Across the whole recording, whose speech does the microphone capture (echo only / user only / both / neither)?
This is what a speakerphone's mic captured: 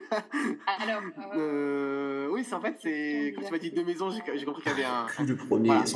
both